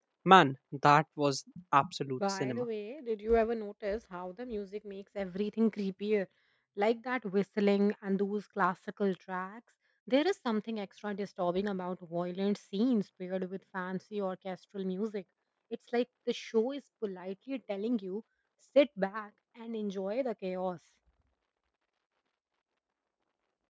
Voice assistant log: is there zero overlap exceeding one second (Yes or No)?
Yes